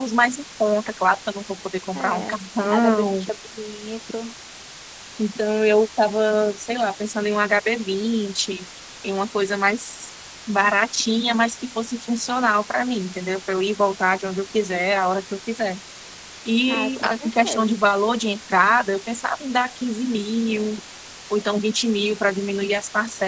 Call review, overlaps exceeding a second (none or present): present